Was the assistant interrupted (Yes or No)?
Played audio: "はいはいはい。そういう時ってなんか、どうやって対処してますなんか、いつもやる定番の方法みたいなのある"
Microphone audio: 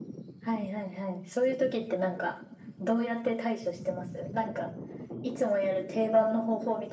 No